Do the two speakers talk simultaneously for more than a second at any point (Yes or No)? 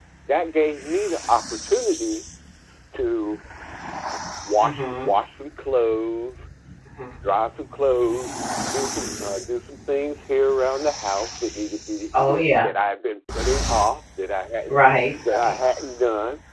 No